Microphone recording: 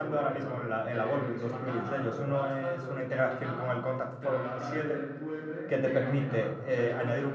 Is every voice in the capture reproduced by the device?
No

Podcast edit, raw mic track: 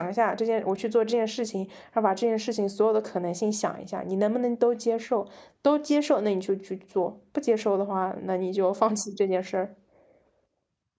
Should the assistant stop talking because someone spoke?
Yes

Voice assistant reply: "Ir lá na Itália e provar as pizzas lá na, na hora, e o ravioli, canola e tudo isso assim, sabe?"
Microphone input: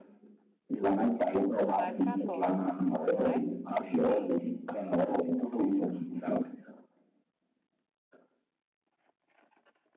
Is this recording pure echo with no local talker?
No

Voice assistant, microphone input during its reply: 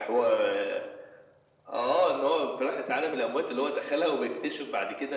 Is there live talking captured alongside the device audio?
No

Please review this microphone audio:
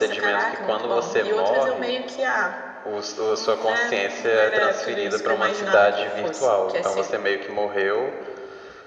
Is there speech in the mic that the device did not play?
No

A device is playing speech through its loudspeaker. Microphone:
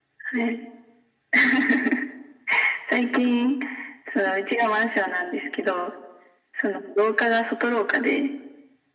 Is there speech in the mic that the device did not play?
No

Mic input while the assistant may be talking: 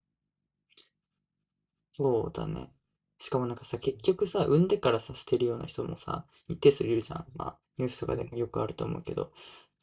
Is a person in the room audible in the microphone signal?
Yes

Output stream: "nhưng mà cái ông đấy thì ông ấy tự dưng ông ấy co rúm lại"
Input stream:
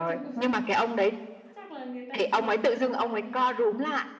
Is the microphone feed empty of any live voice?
No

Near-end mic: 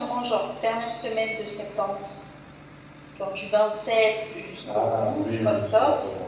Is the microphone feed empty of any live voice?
No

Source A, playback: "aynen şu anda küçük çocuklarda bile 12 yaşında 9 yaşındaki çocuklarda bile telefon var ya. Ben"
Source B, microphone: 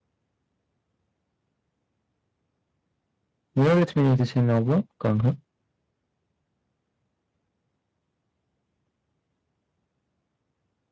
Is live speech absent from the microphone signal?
No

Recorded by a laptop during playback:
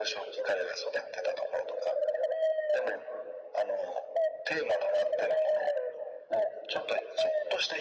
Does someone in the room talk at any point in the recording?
No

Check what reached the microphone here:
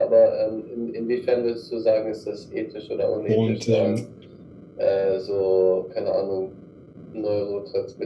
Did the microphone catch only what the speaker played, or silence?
No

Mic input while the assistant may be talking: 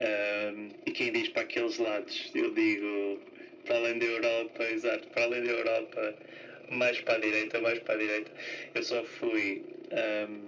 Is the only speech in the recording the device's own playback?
Yes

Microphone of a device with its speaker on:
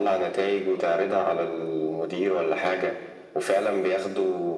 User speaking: No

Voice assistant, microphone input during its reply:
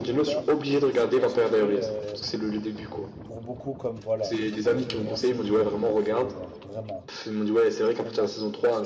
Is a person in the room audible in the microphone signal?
Yes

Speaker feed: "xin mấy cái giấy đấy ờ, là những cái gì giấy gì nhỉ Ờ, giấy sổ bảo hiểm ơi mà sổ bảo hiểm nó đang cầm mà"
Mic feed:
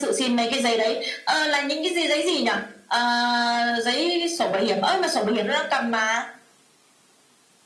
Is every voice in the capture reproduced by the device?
Yes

